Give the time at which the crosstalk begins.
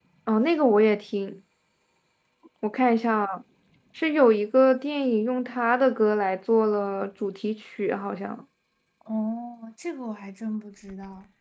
none

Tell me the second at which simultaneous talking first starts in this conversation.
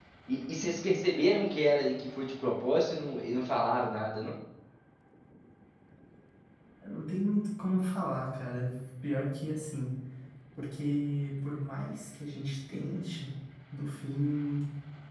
none

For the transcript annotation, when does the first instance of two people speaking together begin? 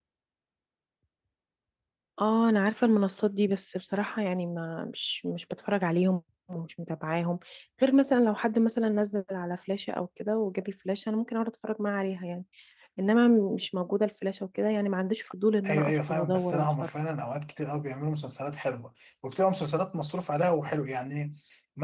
16 s

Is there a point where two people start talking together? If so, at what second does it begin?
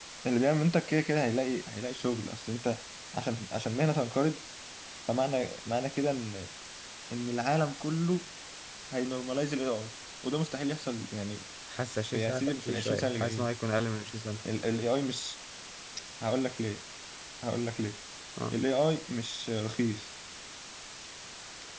12 s

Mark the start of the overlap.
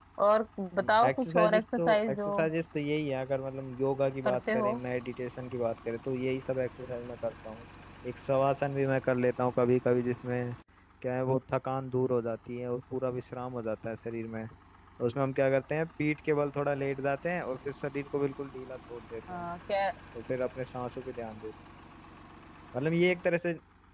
1 s

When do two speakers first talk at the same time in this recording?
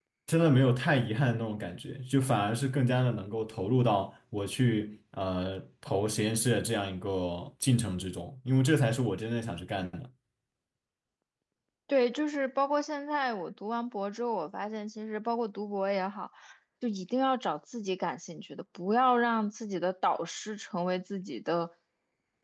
none

